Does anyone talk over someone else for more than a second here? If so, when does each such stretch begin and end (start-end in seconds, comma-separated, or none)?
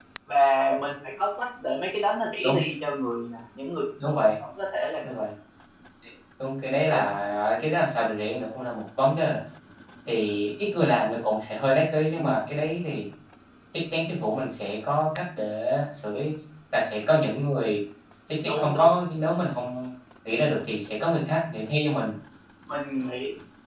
none